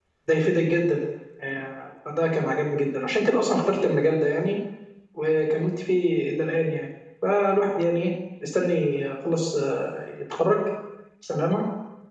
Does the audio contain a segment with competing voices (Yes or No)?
No